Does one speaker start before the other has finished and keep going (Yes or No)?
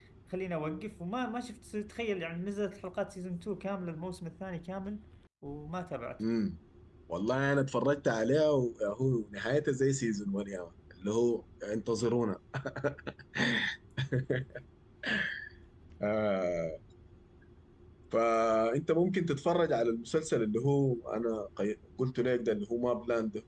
No